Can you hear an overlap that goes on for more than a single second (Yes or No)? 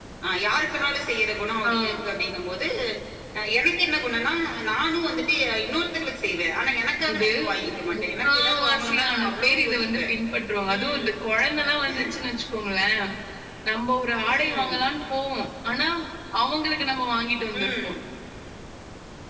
Yes